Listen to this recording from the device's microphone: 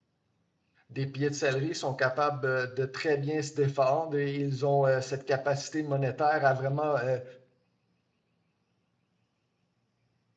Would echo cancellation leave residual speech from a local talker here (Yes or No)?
Yes